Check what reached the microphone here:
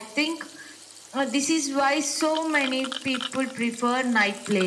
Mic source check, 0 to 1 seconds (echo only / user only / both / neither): echo only